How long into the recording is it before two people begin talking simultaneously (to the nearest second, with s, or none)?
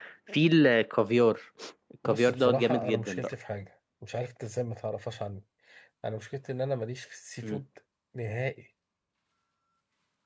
2 s